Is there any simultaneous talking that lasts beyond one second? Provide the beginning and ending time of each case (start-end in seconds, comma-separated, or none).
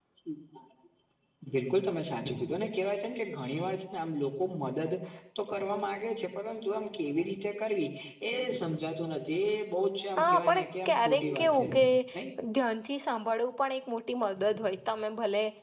10.2-11.7